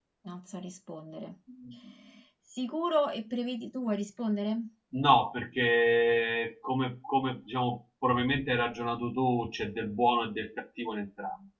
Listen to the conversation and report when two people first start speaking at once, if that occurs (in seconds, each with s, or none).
none